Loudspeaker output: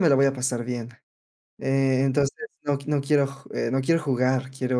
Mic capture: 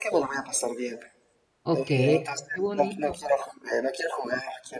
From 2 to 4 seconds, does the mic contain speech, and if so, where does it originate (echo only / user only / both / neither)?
both